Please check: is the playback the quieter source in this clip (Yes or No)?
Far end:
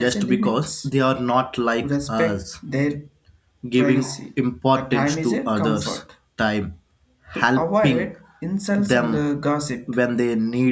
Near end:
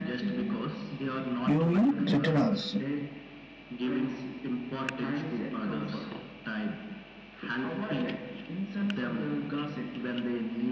Yes